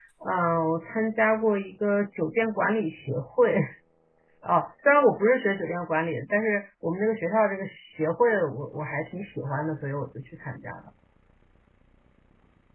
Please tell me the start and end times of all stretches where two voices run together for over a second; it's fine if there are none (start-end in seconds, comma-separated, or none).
none